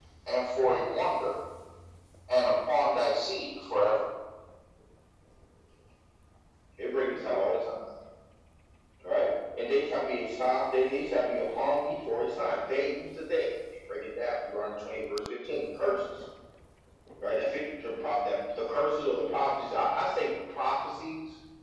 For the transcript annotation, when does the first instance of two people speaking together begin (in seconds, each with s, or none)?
none